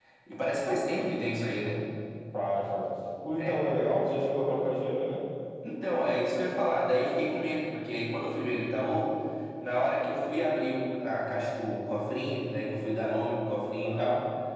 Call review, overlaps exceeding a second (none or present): none